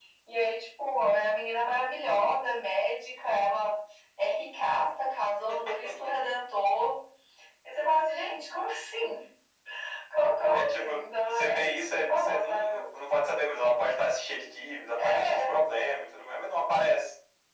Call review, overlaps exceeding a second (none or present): present